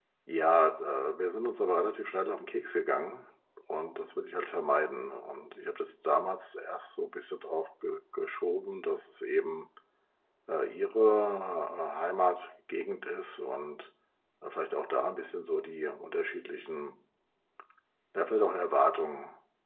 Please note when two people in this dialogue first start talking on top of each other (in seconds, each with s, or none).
none